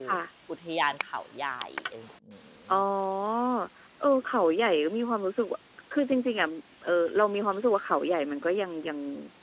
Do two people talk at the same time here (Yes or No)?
No